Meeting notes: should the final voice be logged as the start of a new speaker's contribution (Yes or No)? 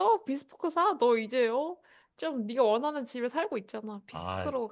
Yes